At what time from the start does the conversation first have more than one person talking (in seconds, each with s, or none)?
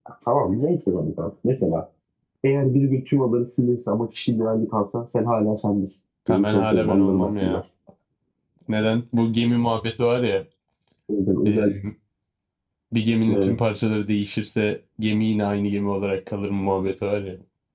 6.3 s